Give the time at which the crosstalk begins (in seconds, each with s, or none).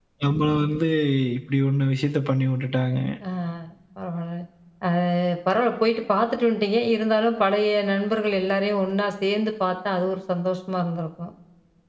none